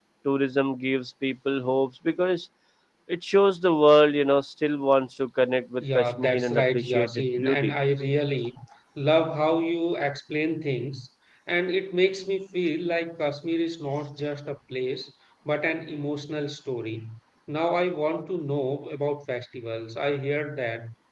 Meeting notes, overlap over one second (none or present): present